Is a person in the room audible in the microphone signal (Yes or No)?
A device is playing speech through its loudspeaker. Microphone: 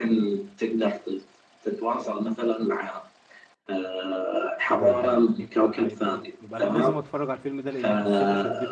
Yes